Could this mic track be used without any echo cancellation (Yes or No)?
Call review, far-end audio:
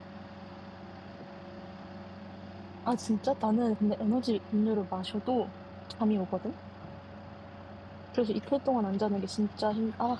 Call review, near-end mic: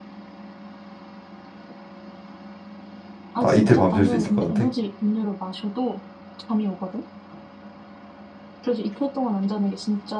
No